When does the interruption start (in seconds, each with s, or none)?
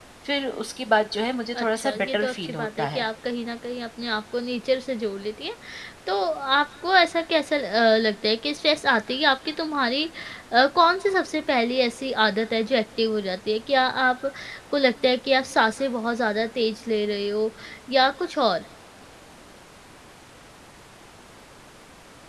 1.6 s